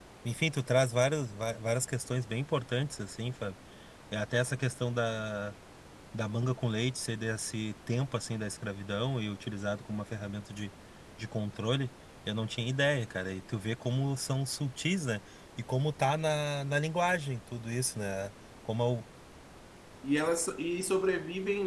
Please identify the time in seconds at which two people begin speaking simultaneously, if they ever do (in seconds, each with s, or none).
none